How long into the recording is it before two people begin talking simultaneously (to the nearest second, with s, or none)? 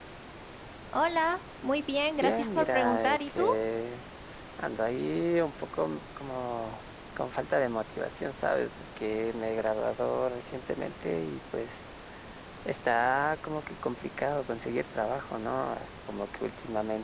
2 s